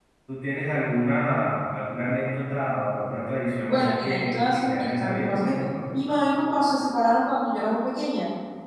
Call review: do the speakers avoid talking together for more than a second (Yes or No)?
No